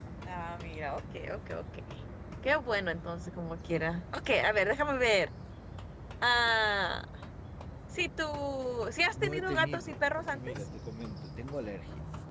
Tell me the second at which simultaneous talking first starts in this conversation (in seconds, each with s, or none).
9.1 s